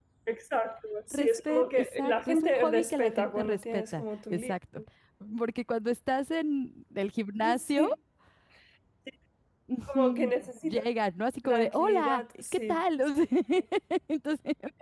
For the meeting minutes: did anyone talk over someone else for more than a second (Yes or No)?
Yes